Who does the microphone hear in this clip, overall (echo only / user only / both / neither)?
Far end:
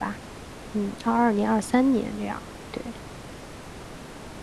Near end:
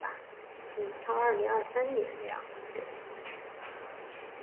echo only